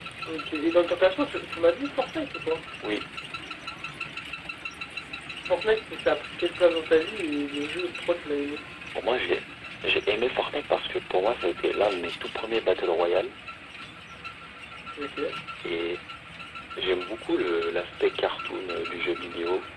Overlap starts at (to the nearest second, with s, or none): none